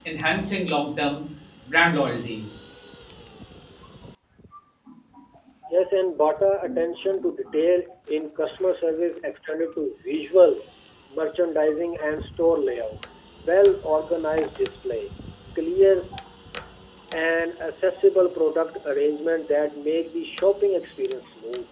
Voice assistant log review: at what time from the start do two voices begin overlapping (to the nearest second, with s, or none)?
none